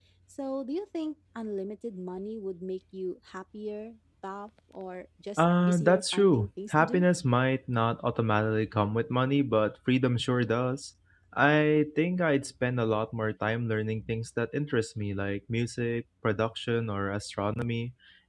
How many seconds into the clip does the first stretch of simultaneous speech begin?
5.4 s

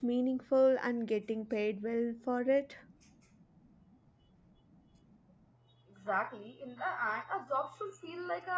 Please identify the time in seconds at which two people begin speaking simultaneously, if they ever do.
none

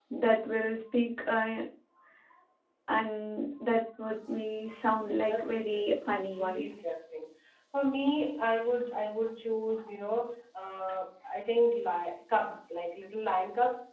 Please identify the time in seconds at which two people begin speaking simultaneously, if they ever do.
4.9 s

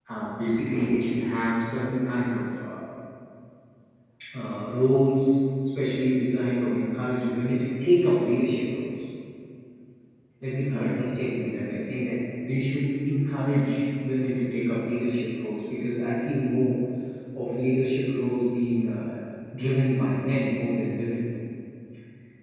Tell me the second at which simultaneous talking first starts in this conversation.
none

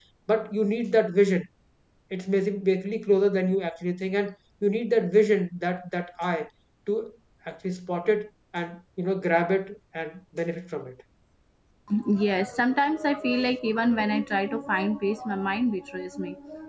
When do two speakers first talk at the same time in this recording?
none

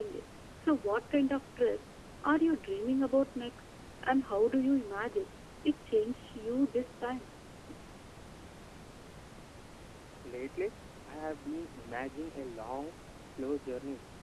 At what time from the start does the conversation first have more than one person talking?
none

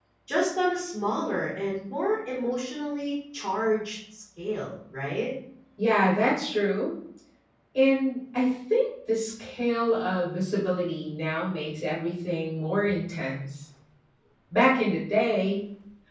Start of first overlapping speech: none

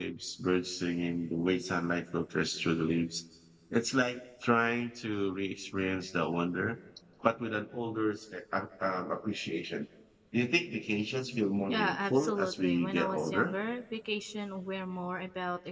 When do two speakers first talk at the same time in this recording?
11.7 s

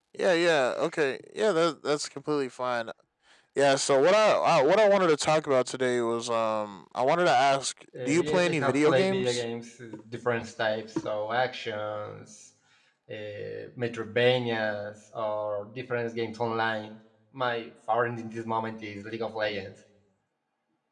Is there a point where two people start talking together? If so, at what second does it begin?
7.9 s

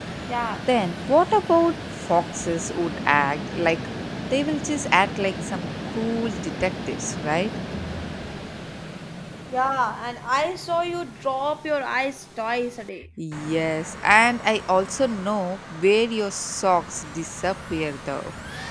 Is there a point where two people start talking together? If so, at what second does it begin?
none

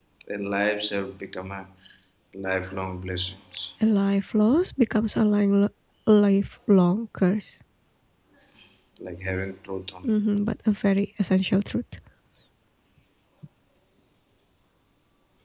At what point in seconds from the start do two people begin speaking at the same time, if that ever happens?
none

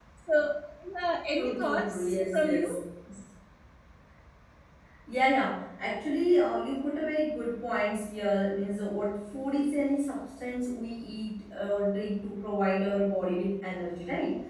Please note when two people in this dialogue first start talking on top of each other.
1.4 s

